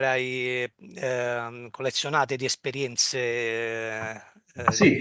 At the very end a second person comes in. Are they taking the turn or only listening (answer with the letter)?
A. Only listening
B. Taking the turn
B